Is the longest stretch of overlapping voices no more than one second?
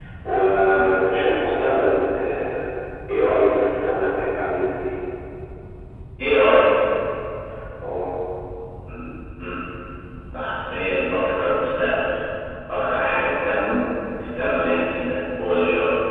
Yes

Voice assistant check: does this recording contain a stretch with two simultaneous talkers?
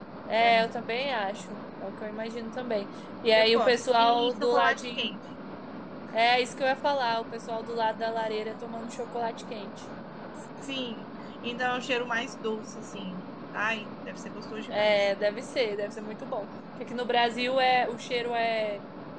Yes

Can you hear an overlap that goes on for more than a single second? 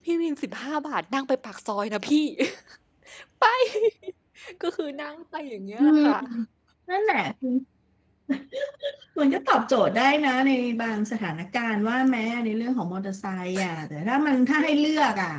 No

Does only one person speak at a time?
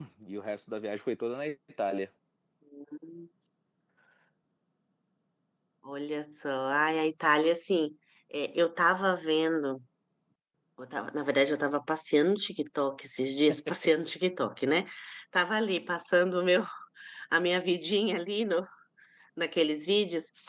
Yes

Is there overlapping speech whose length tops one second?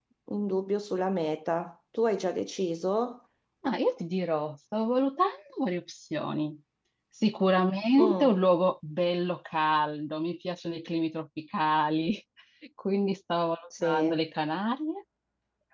No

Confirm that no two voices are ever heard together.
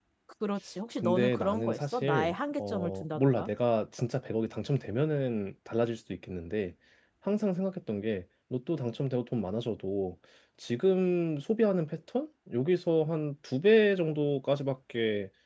No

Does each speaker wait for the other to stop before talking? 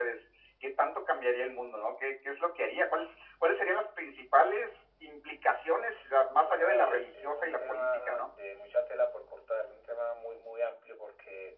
No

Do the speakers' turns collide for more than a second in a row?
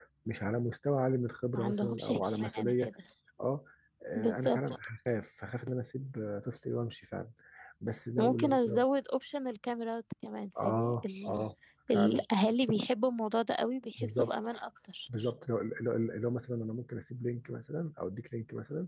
Yes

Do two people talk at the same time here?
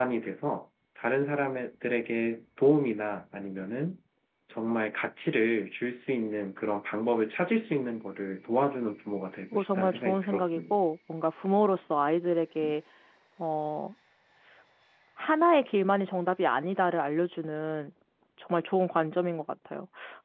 Yes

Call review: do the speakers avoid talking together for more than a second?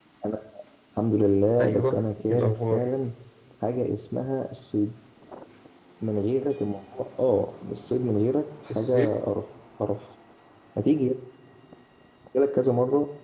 No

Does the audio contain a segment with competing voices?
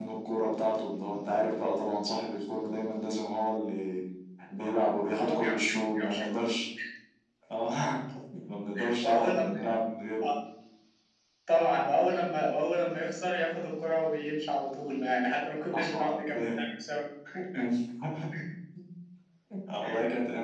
Yes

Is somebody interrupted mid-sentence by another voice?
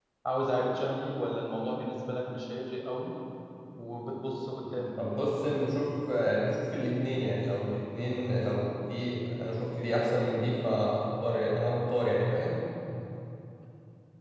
No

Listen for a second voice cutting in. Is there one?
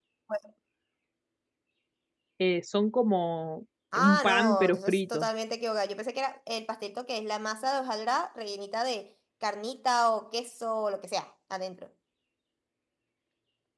Yes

